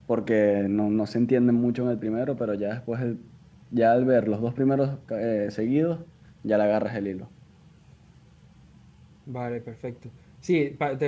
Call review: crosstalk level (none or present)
none